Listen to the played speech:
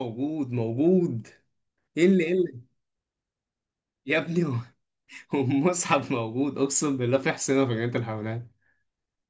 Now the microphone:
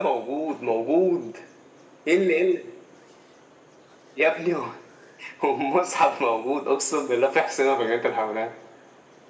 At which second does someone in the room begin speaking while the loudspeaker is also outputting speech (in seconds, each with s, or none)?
none